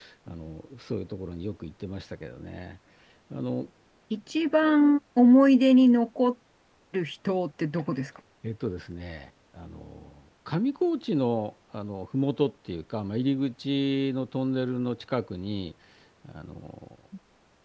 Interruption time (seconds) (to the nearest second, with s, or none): none